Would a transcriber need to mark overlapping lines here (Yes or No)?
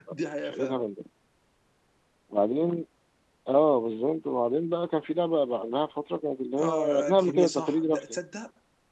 Yes